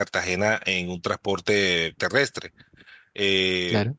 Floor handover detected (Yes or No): No